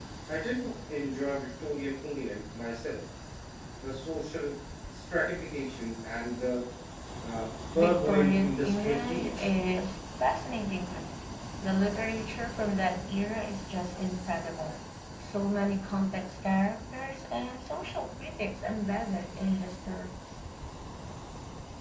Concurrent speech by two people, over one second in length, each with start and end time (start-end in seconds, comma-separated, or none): 7.7-9.5